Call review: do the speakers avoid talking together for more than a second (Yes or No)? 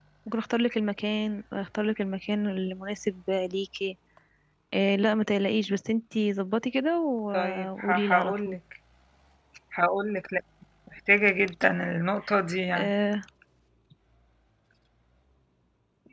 No